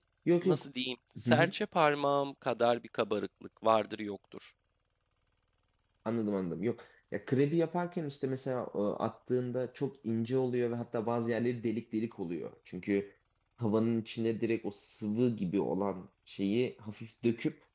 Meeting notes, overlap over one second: none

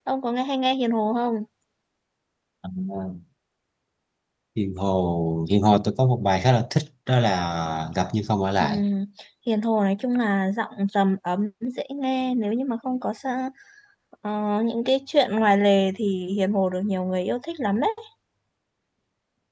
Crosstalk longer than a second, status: none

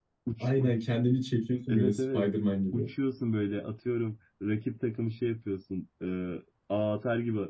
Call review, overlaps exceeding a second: none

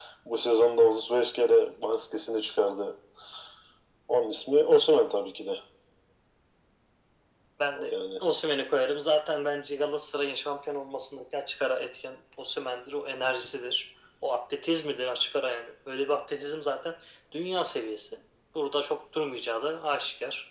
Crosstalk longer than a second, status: none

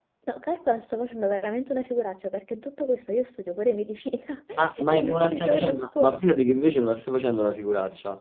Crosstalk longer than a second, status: present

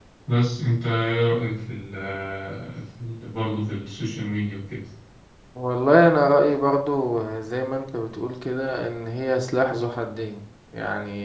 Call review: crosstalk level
none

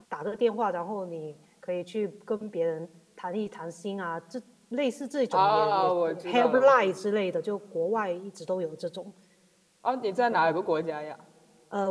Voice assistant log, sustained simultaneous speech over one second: present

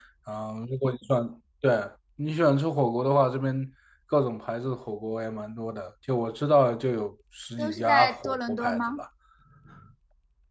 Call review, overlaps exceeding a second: present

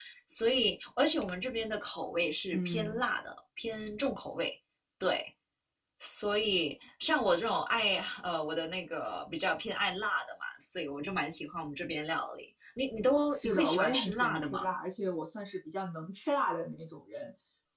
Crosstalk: present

